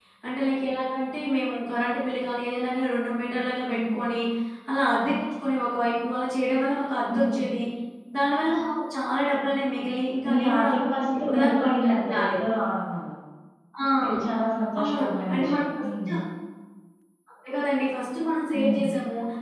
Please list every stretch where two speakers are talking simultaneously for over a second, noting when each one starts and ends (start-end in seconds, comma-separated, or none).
11.2-12.4, 14.8-16.1